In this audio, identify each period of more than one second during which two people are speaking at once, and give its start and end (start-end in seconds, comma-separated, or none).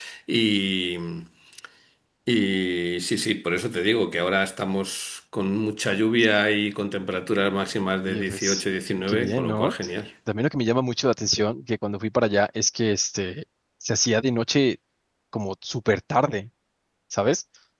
8.1-9.7